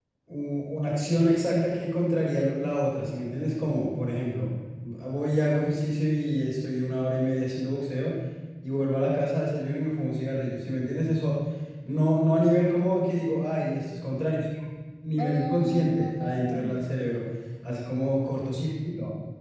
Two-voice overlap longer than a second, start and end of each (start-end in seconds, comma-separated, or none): 15.2-16.8